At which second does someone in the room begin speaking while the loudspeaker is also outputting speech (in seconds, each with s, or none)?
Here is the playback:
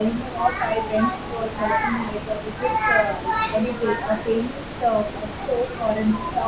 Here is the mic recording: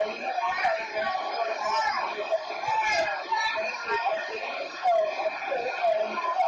none